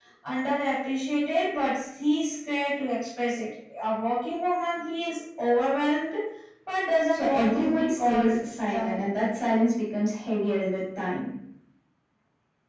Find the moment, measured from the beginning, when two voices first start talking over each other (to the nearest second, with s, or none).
7 s